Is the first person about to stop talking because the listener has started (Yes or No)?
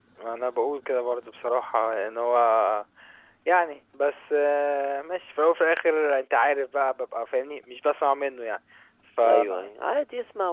Yes